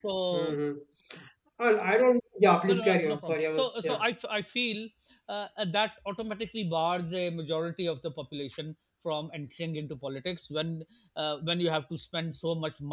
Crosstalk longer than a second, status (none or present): present